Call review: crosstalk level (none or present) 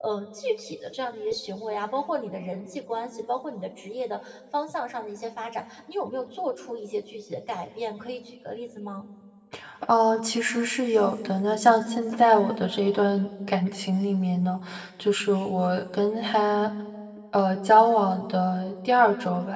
none